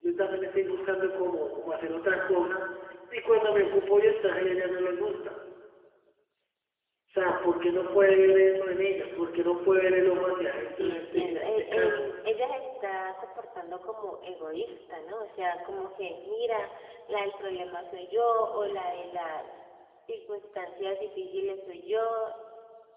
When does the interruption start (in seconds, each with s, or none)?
10.8 s